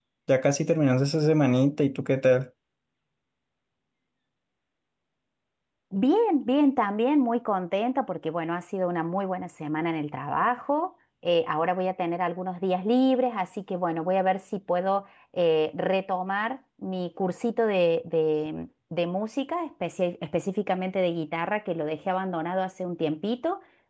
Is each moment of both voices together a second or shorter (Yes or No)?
Yes